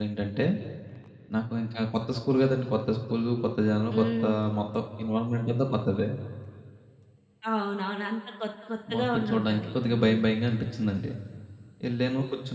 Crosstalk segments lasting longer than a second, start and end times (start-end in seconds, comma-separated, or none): 9.0-10.2